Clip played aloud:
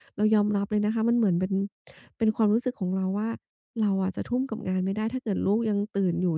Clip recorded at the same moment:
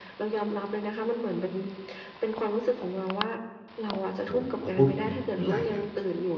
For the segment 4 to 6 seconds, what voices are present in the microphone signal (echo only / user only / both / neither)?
both